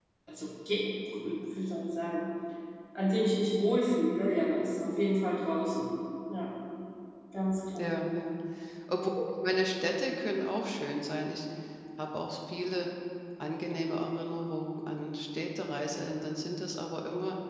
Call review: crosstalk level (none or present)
none